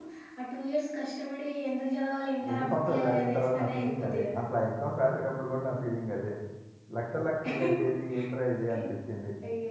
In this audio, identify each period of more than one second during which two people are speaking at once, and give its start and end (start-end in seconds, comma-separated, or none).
2.5-4.4